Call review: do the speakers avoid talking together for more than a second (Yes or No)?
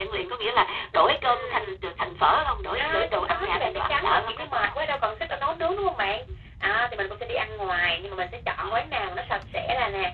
No